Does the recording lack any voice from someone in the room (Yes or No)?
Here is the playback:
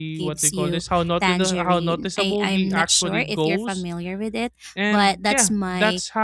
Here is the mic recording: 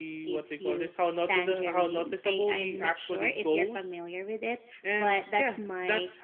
Yes